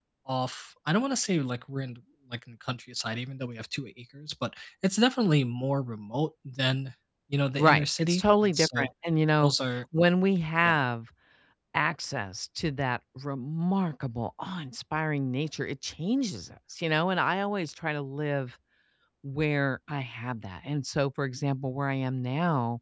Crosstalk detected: Yes, from 7.6 s

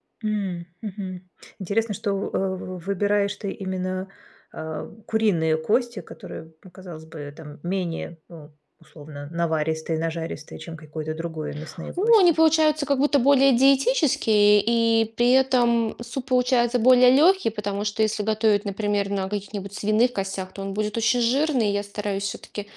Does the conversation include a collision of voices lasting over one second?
No

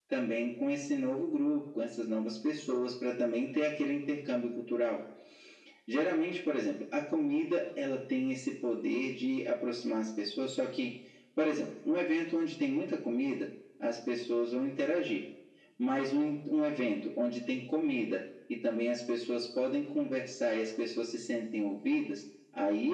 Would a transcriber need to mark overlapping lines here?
No

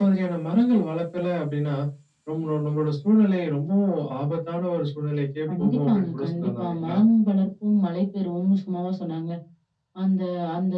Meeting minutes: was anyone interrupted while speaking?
Yes, from 5.5 s

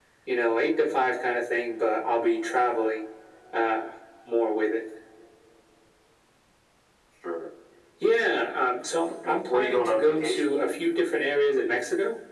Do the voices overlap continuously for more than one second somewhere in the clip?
Yes, from 9.1 s

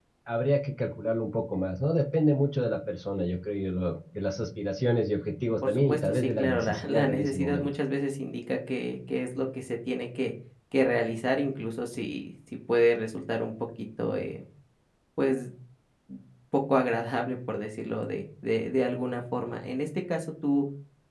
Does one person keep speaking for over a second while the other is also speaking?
Yes, from 5.6 s

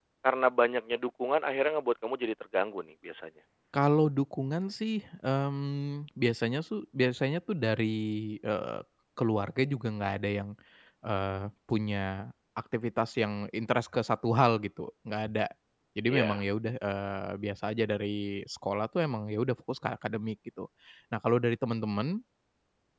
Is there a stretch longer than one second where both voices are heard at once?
No

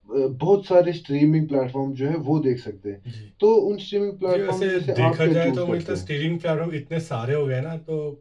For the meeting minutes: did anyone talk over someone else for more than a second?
Yes, from 4.3 s

